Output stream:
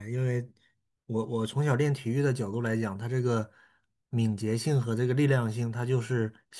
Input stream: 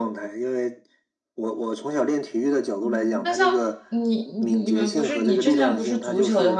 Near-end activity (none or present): present